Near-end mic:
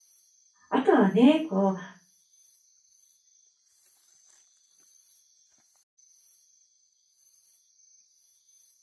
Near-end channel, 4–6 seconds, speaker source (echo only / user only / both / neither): neither